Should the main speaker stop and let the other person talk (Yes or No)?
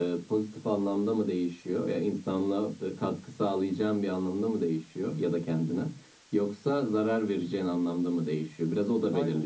No